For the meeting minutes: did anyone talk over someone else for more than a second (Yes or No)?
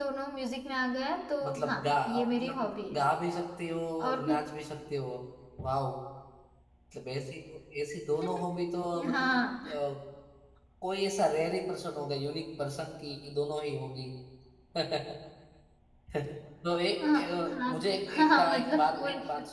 Yes